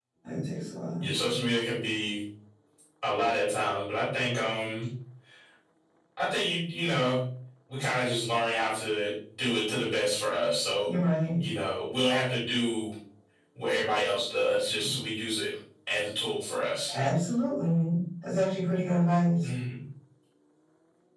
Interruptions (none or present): none